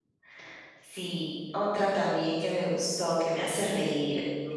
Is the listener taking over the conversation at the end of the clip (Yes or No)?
Yes